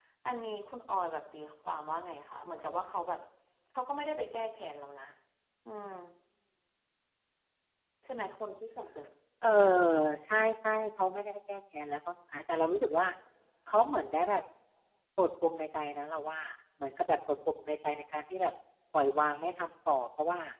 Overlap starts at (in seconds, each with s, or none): none